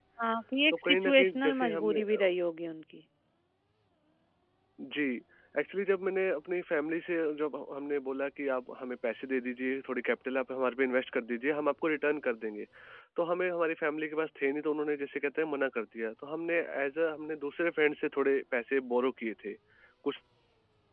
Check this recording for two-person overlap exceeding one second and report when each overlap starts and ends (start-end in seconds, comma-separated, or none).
0.7-2.3